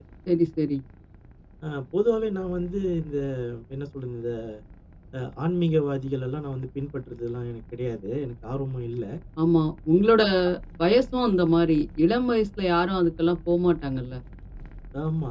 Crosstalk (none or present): none